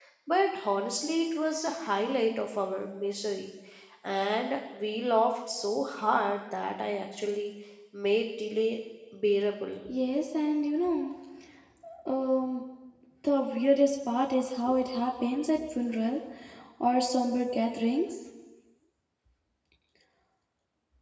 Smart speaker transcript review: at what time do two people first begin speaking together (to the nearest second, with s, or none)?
none